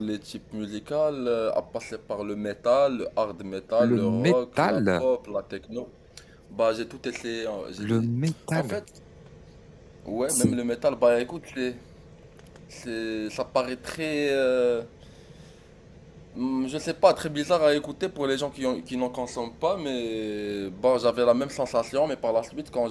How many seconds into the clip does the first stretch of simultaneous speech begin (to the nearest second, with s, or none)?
4 s